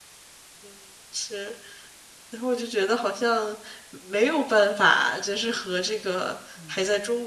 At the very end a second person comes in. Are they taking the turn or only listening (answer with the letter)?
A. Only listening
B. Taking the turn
A